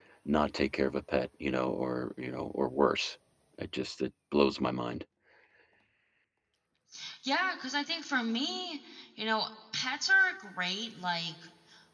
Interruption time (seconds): none

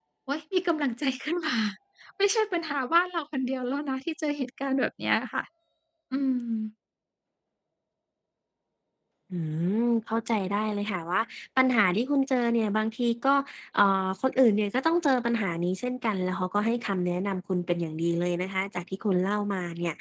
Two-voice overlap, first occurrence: none

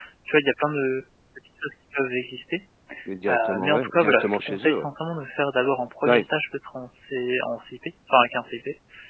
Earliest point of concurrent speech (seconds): 3.3 s

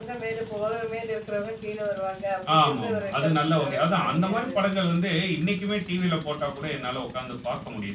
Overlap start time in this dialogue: 2.5 s

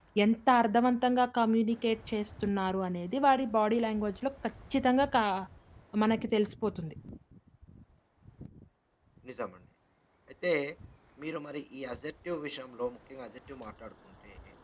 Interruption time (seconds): none

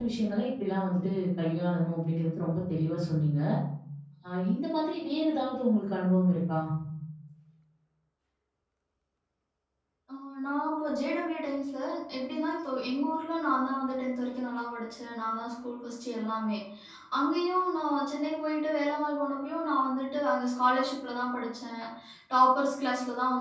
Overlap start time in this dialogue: none

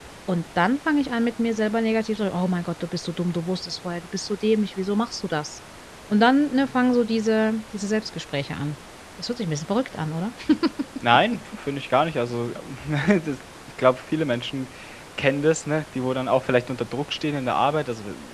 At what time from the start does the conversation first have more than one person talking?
none

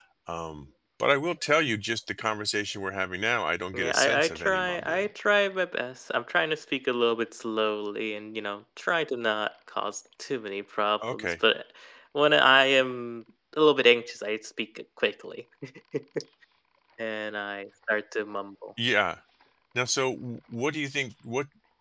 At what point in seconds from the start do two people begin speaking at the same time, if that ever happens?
3.7 s

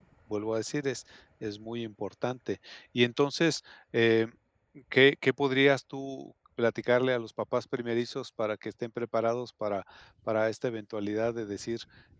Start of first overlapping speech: none

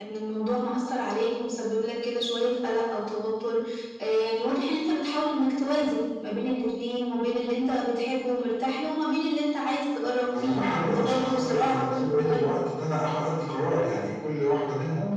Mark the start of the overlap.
10.3 s

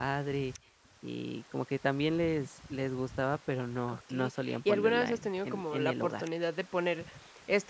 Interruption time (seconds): 3.9 s

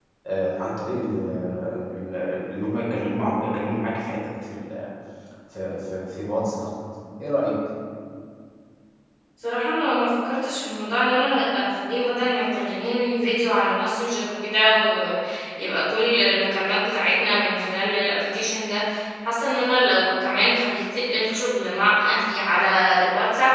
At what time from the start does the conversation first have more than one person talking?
none

